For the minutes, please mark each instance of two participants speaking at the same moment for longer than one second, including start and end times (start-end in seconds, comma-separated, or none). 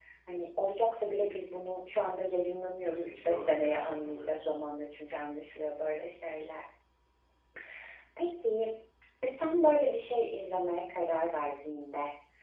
2.8-4.5